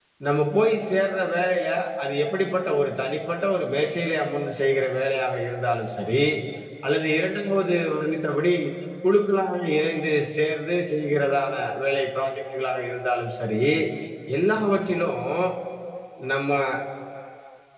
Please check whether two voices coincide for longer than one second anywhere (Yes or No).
No